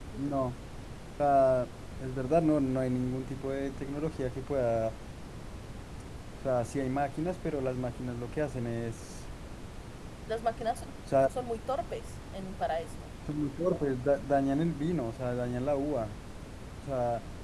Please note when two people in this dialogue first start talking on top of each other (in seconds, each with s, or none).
none